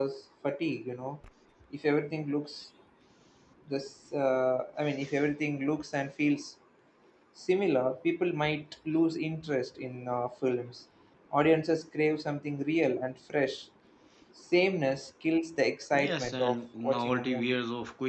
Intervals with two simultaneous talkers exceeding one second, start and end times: 15.9-17.6

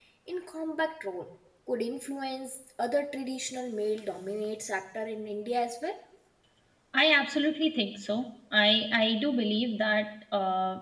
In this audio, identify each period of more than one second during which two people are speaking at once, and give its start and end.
none

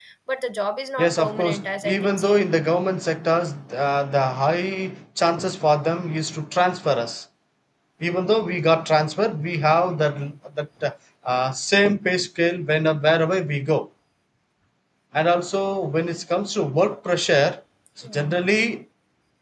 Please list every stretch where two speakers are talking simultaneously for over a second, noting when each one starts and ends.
1.0-2.4

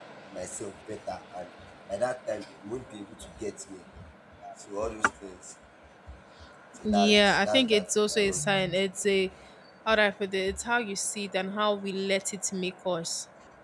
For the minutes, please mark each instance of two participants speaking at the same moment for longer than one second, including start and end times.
6.8-8.7

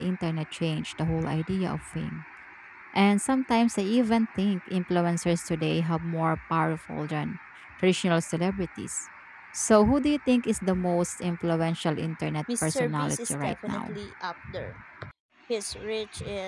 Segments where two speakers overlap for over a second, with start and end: 12.6-14.0

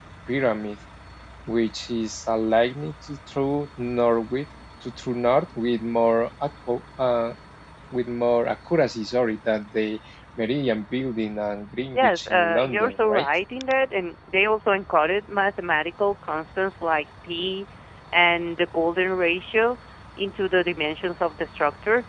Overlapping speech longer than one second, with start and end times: 11.9-13.3

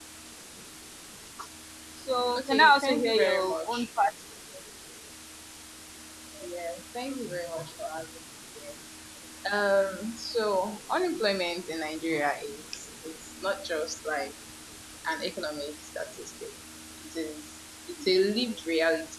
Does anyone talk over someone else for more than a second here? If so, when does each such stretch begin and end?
2.4-3.9

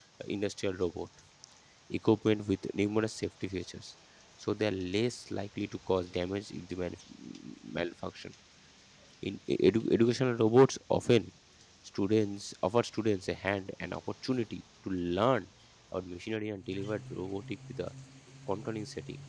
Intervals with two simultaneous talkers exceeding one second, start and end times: none

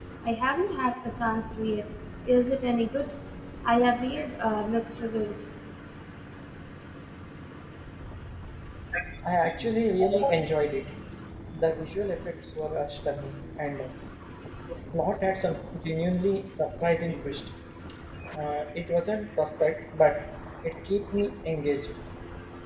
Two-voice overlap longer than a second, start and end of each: none

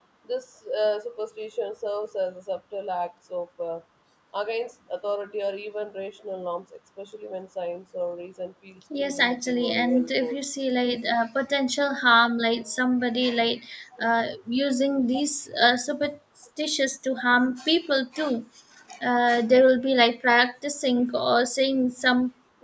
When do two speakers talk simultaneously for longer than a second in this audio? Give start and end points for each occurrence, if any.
9.0-10.4

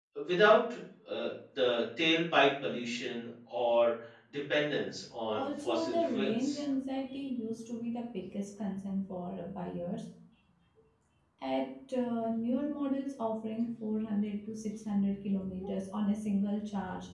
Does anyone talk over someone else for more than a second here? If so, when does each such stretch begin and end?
5.3-6.6

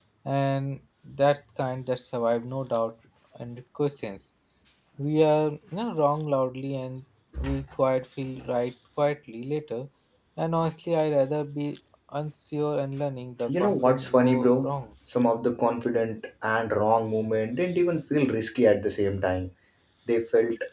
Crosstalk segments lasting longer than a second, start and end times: 13.5-14.7

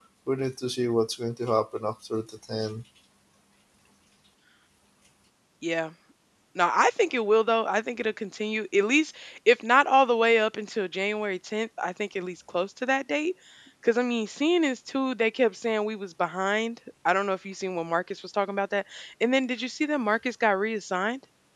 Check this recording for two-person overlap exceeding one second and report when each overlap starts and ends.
none

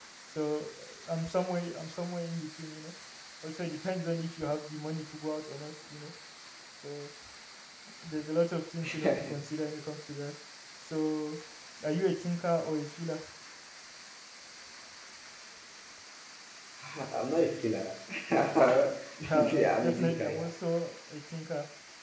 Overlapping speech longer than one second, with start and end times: 19.2-20.5

